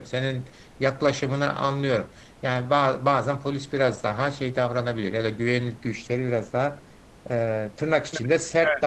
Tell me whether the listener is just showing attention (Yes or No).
No